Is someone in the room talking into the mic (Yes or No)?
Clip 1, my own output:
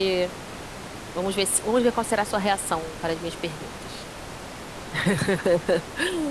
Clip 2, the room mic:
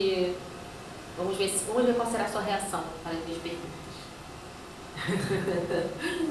No